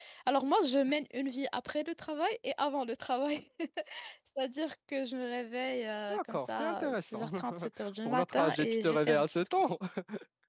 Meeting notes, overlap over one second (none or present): present